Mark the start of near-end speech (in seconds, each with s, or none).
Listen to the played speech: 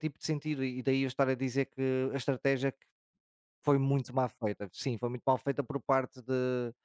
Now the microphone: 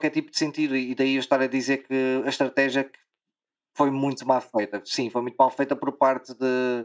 none